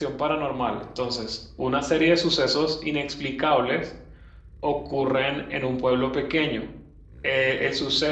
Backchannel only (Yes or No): Yes